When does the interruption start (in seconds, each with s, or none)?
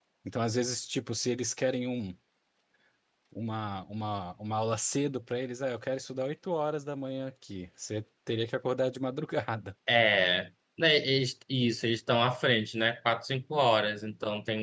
none